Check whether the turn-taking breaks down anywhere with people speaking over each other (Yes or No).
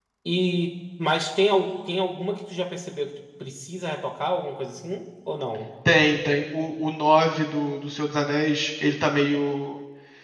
No